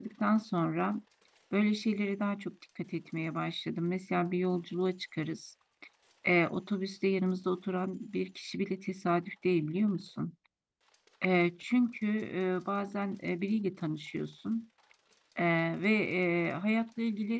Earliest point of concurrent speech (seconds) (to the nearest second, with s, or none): none